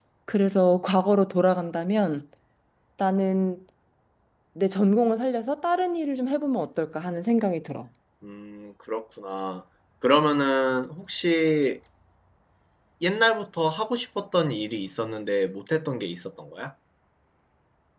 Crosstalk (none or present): none